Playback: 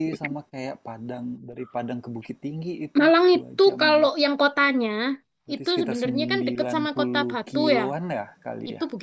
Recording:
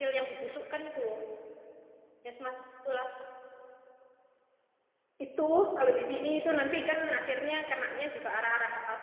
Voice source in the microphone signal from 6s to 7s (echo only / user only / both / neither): user only